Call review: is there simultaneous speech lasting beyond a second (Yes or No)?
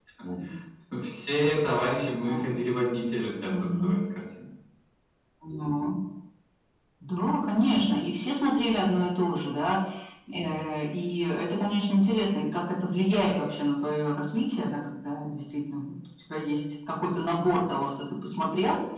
No